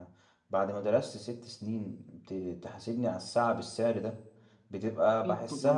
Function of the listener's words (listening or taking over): listening